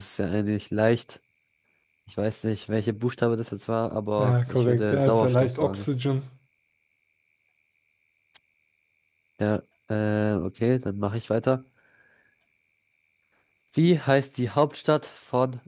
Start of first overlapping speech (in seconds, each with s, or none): 4.2 s